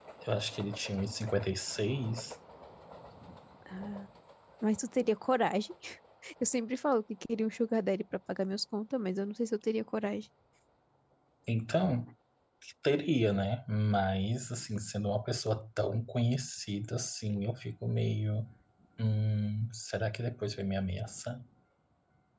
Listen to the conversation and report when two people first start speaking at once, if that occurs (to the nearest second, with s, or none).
none